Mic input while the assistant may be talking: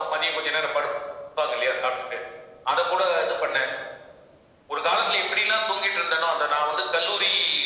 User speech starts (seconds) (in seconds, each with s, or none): none